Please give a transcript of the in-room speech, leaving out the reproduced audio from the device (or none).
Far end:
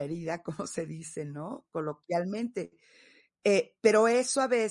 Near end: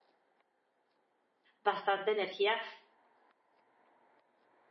bastante energía,